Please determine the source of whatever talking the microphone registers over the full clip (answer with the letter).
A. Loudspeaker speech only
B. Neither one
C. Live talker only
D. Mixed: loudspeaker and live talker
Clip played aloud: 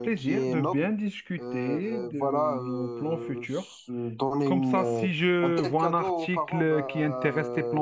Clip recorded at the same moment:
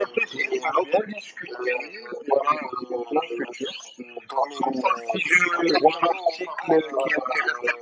A